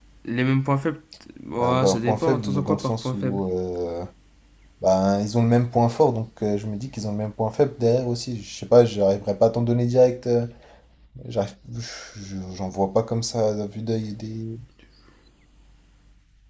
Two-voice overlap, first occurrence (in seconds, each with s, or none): 1.6 s